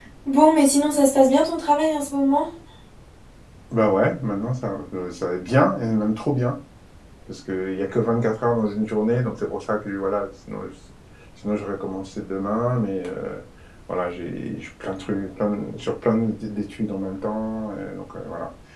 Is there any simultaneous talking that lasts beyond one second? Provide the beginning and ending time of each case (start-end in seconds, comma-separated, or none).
none